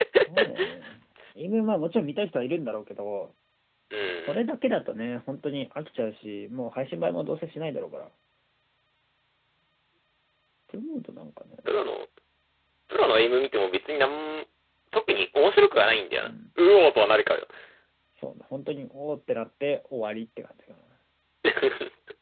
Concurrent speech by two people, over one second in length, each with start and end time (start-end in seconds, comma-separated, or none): none